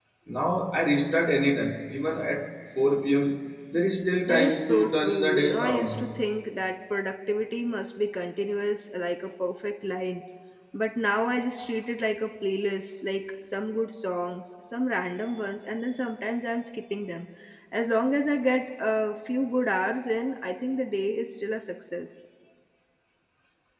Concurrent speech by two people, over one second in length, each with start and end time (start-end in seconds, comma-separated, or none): 4.3-6.0